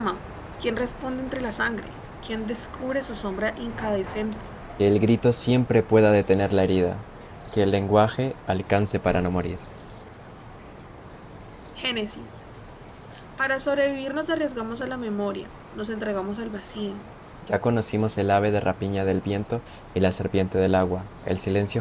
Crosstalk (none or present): none